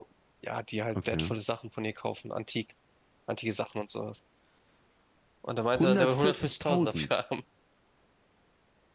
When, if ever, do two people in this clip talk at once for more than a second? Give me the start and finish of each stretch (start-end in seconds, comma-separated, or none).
5.7-7.1